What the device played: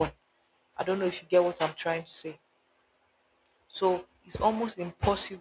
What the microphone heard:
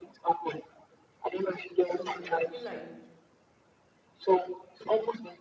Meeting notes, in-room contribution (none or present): present